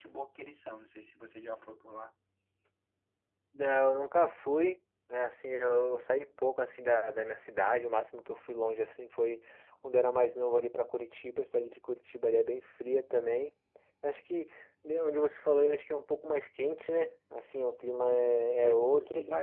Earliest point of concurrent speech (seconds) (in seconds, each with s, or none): 18.0 s